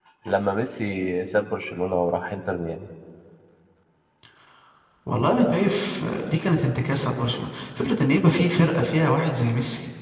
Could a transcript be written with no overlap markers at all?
Yes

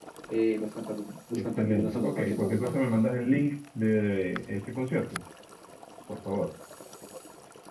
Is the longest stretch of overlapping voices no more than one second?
No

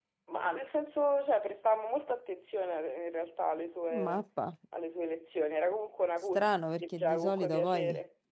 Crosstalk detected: Yes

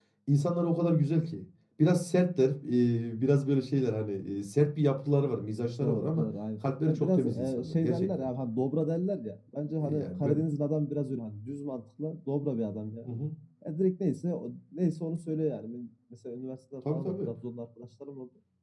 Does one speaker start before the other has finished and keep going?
Yes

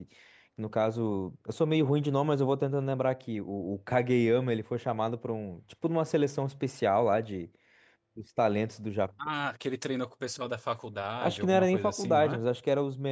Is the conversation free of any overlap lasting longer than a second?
No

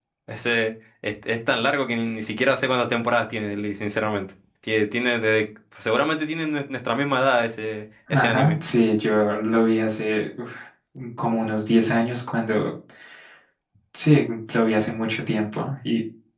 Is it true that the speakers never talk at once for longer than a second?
Yes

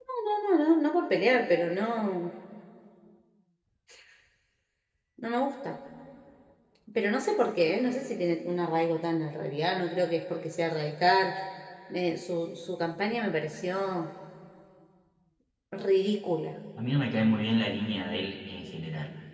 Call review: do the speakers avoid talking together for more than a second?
Yes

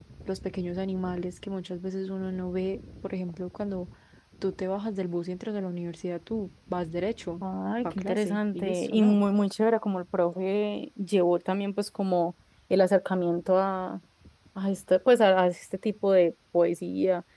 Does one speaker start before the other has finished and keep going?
Yes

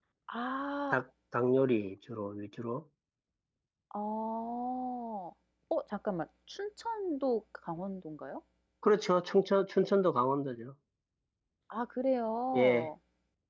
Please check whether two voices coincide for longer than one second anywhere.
No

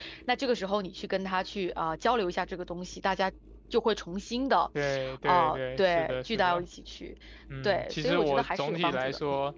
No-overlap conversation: No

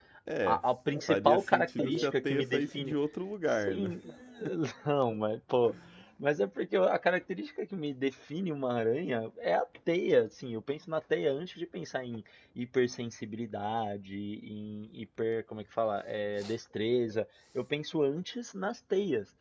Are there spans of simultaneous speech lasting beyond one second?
Yes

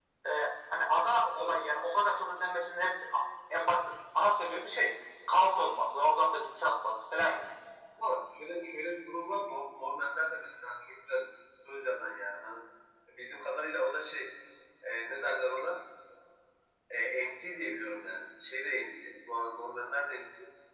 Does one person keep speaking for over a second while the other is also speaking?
No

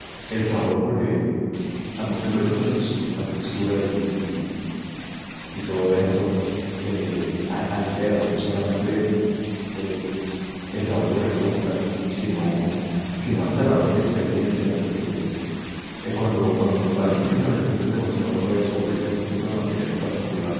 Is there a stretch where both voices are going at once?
No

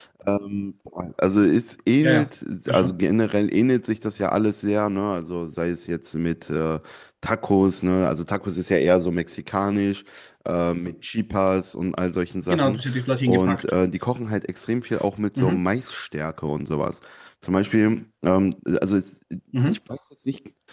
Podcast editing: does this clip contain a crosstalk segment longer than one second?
No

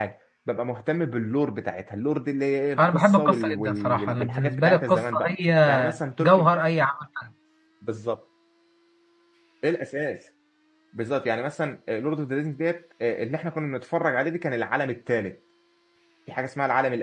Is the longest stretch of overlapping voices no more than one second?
No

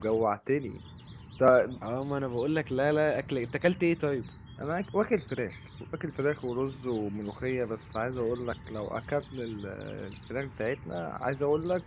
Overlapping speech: No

